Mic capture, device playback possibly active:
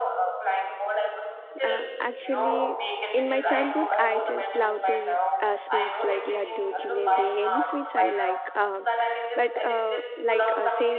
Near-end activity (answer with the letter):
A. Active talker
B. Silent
A